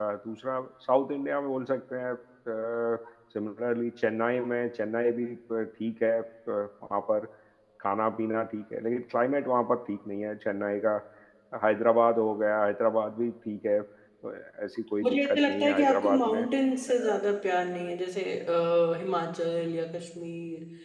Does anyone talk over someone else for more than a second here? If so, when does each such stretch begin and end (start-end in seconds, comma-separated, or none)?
15.0-16.5